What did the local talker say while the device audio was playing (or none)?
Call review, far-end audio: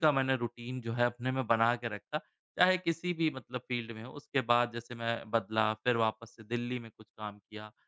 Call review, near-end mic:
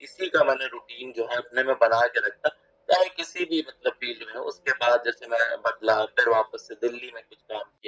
none